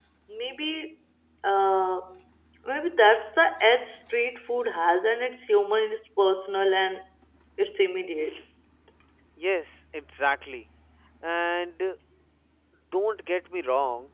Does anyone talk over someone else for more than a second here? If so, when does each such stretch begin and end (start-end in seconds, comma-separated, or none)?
none